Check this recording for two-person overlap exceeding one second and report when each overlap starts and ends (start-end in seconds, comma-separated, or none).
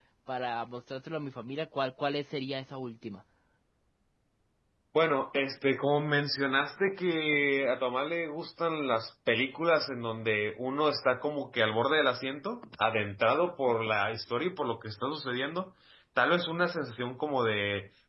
none